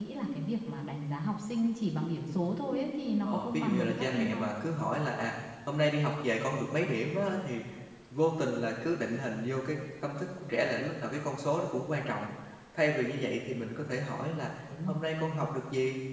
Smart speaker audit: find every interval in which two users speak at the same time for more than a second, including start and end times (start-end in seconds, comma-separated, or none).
3.2-4.5